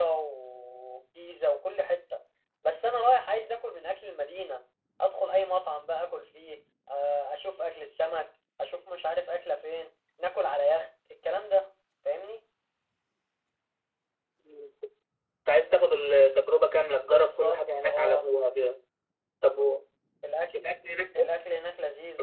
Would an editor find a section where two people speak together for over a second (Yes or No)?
Yes